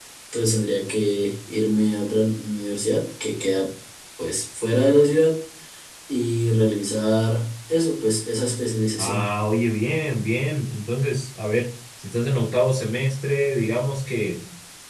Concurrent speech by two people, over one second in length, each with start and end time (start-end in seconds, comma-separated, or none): none